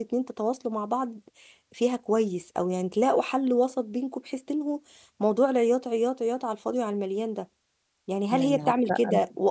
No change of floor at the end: Yes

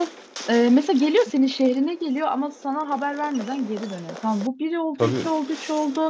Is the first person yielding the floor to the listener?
No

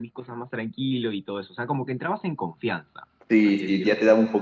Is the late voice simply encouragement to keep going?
No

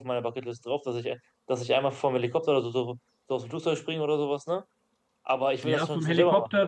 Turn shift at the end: Yes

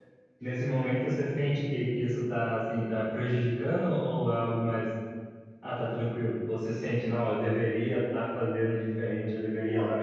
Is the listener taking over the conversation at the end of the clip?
No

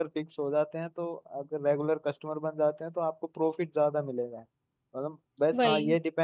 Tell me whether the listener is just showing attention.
Yes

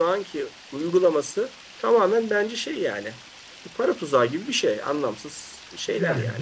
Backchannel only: No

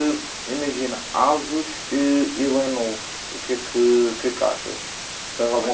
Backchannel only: No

